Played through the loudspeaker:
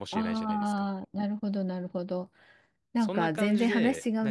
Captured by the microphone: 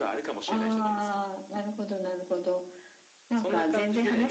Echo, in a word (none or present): present